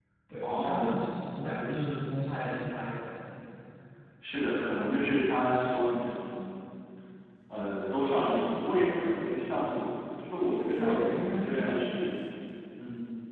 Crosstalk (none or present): present